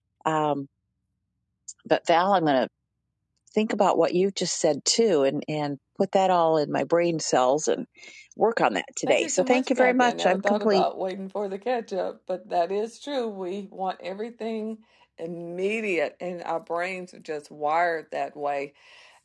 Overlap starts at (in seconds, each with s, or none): 9.1 s